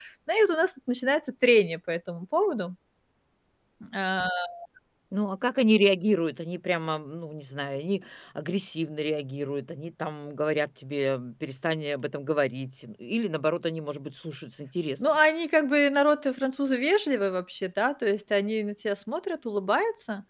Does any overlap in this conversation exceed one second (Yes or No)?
No